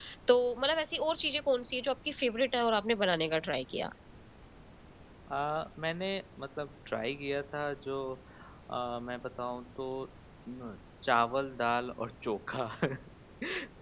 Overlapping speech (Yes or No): No